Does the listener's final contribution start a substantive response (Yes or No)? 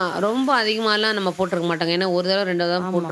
Yes